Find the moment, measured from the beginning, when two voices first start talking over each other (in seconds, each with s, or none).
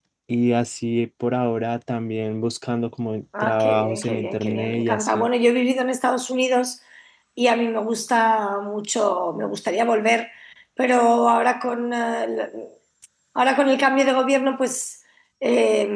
3.3 s